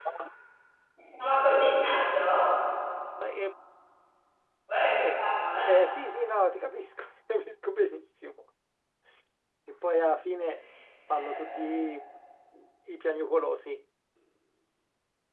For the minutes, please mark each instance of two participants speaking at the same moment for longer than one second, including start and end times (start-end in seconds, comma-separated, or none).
none